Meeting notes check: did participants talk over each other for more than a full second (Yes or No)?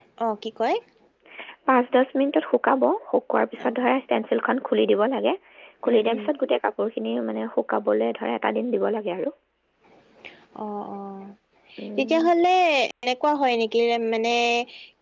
No